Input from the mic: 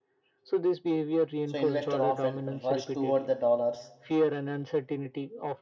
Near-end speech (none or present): present